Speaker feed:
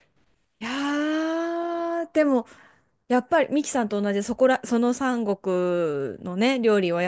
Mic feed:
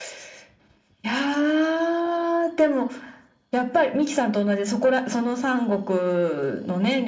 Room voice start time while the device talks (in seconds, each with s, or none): none